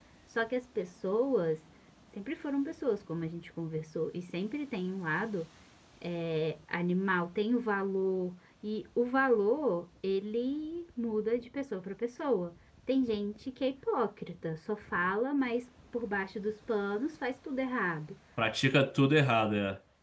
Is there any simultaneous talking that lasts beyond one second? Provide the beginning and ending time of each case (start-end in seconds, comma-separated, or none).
none